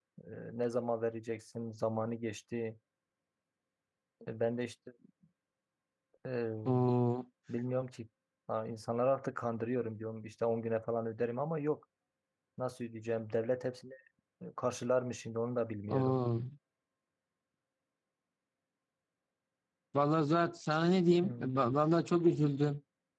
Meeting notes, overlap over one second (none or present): none